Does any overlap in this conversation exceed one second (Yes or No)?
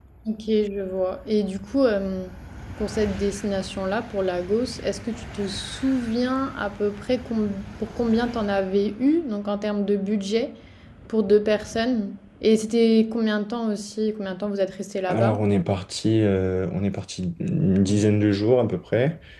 No